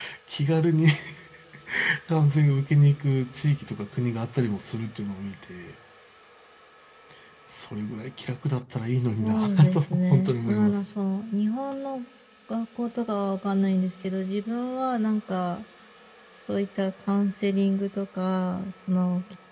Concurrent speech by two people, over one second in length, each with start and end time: 9.2-10.7

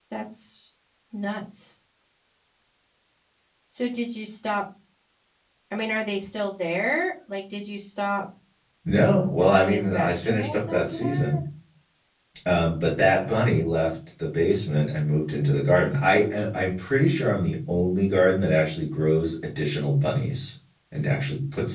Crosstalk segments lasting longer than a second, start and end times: 9.4-11.4

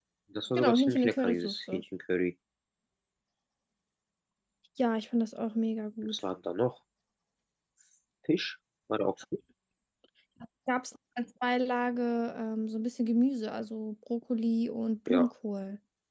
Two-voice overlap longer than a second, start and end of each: 0.6-1.8

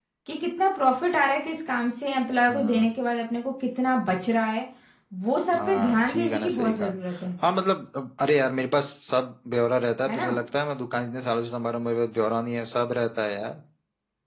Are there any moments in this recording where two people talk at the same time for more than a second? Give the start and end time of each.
5.6-6.9

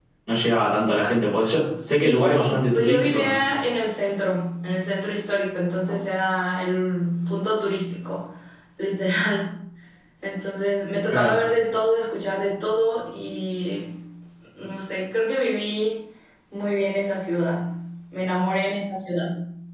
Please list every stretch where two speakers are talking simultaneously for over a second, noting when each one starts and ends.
1.9-3.4

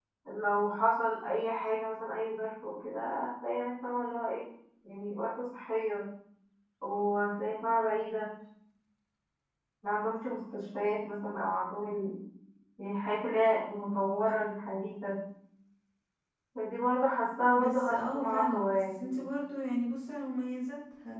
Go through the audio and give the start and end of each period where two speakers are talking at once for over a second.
17.6-19.2

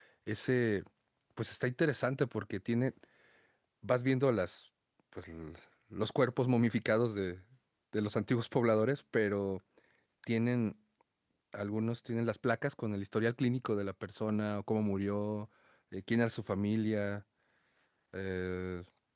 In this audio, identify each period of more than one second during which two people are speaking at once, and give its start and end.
none

